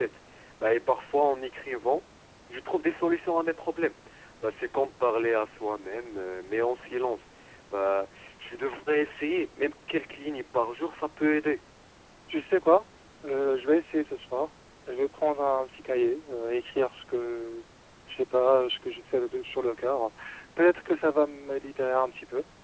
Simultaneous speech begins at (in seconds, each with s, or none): none